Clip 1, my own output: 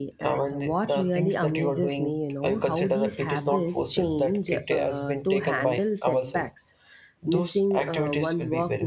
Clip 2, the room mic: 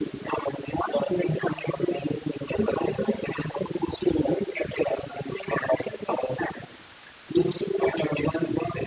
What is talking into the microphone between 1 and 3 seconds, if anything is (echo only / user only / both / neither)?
echo only